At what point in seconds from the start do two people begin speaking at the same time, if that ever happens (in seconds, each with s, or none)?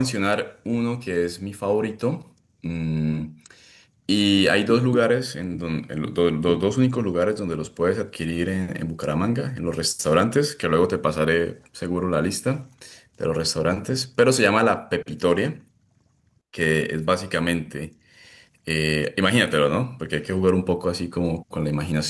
none